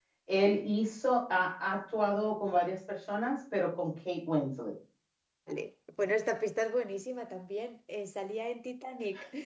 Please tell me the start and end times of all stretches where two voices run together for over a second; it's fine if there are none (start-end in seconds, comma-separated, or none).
none